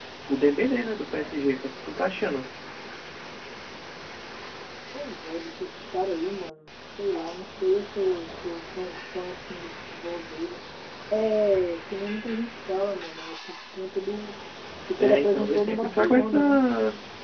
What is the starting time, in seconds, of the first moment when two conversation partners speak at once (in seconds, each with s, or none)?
15.0 s